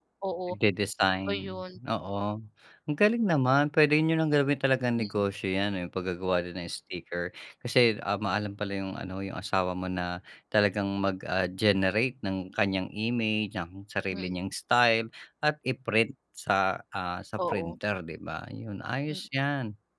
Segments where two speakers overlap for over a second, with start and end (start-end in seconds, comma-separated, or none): none